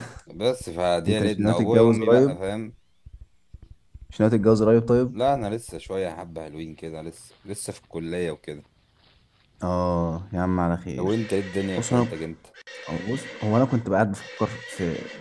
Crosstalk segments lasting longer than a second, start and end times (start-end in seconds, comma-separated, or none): 1.1-2.4